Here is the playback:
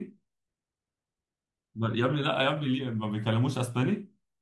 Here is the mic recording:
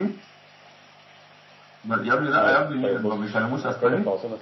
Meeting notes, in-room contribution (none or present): present